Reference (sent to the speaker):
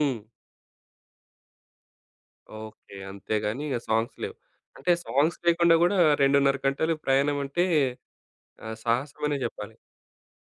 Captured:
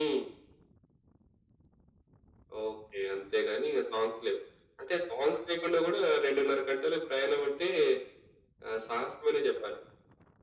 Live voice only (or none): none